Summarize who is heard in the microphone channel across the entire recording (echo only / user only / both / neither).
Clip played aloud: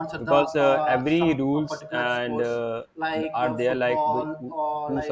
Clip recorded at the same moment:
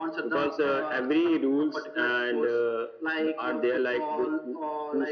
echo only